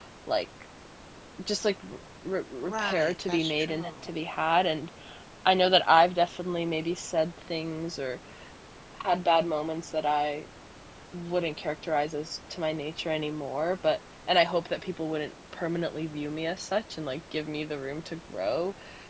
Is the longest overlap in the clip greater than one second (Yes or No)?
Yes